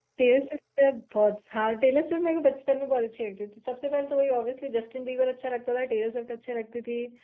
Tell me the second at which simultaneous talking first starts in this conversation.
none

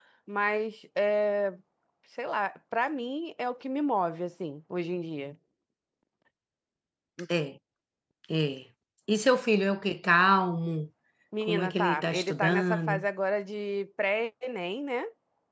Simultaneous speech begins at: 11.4 s

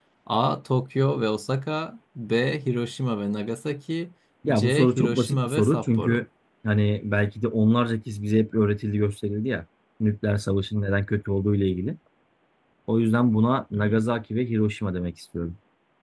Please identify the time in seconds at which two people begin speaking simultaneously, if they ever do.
4.5 s

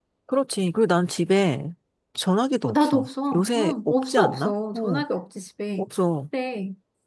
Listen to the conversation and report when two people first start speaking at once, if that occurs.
2.6 s

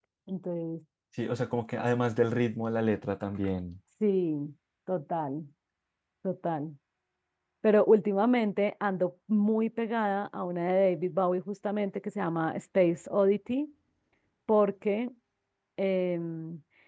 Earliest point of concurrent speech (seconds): none

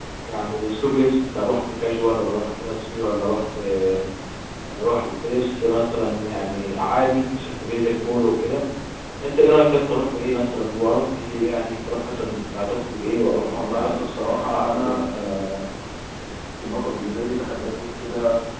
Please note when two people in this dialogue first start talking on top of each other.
13.5 s

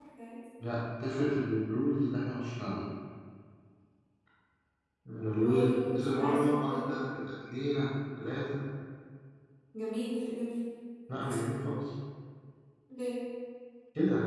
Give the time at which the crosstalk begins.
5.4 s

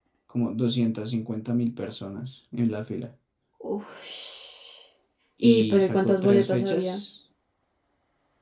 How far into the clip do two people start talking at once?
5.4 s

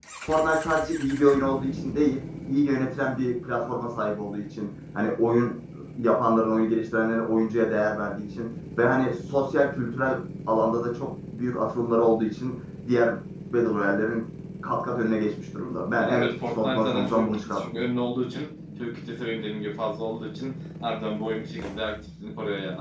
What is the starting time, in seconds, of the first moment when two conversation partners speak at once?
16.0 s

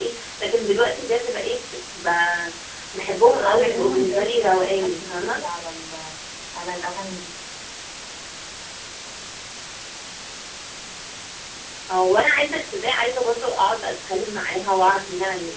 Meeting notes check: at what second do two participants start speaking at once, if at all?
3.2 s

